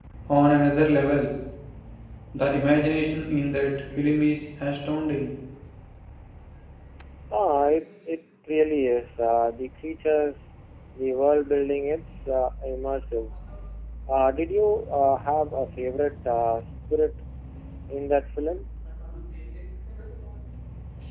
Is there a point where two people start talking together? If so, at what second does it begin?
none

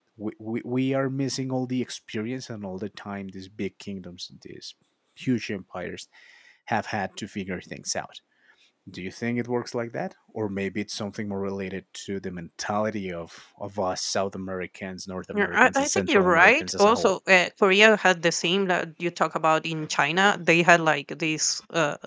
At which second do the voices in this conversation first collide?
15.3 s

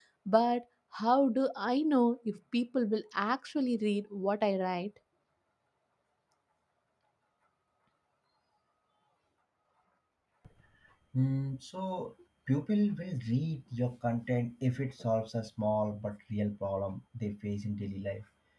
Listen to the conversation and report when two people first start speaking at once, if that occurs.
none

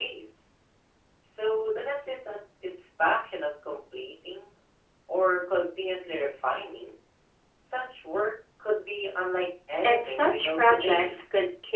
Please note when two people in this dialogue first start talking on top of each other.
9.8 s

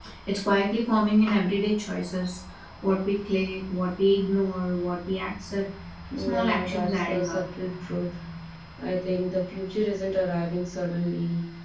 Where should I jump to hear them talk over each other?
6.2 s

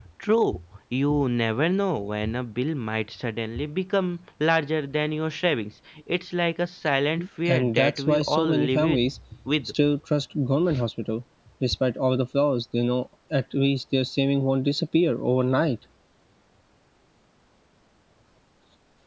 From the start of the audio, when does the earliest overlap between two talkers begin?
7.5 s

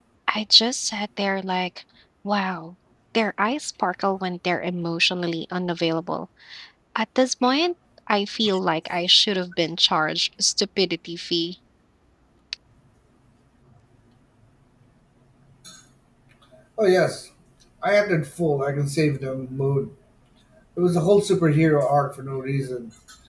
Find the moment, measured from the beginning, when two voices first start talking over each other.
none

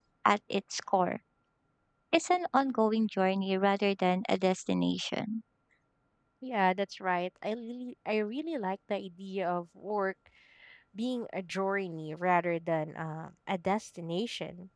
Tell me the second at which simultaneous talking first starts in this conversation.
none

